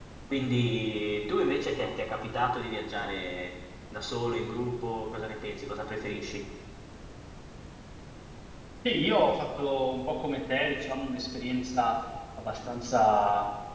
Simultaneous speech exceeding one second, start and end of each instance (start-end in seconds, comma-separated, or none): none